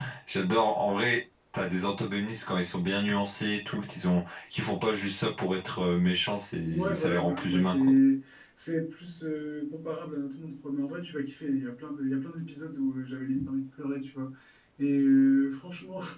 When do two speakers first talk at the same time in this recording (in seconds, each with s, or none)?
6.6 s